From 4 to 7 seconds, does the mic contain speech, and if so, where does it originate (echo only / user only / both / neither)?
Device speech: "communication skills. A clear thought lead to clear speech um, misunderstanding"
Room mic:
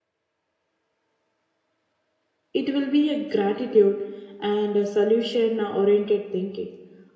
user only